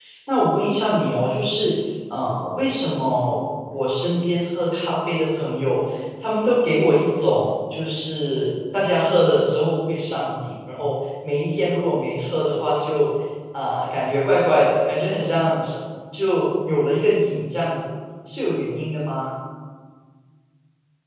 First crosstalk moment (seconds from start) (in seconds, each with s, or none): none